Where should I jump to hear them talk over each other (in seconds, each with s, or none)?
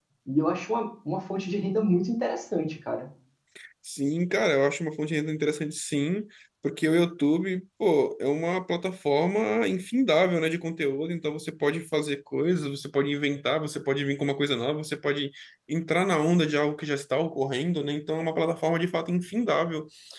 none